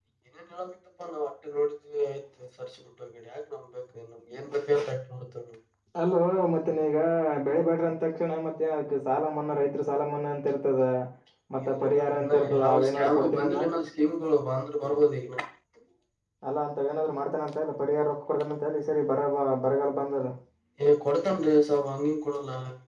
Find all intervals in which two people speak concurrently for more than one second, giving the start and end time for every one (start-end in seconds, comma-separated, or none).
11.6-13.6